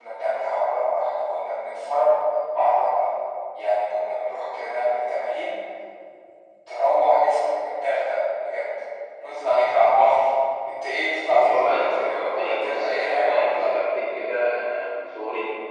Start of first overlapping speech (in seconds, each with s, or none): 11.4 s